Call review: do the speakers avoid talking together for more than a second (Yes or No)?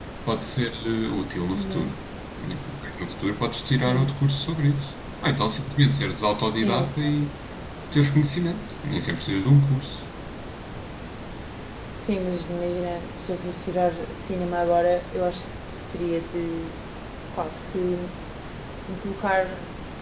Yes